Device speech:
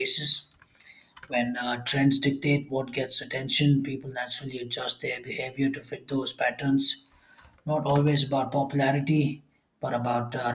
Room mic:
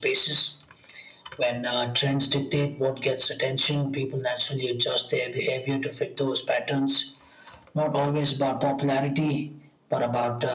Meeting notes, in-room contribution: none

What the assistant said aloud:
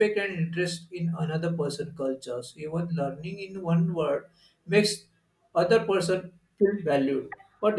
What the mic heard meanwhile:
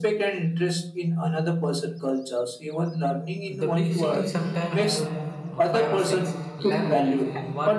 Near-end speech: present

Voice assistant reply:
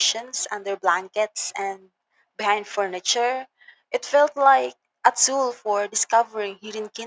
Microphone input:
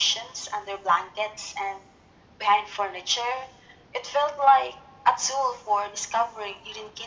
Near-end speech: none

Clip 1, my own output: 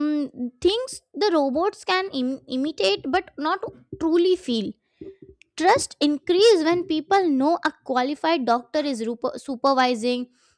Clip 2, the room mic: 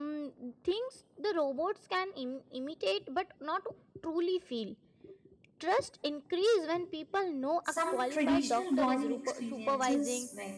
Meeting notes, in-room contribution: present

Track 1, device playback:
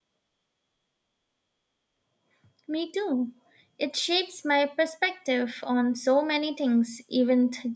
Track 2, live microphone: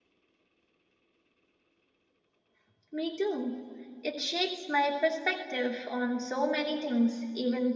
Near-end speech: none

